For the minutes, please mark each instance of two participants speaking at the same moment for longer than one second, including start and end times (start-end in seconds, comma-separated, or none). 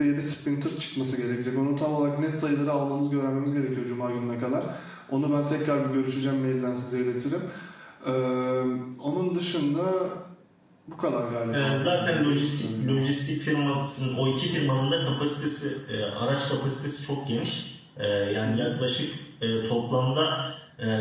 11.5-13.0